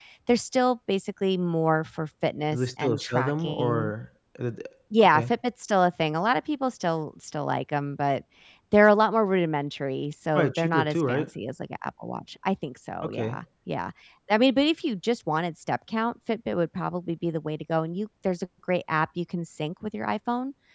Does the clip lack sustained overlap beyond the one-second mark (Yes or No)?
No